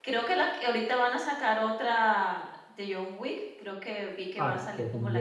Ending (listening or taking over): taking over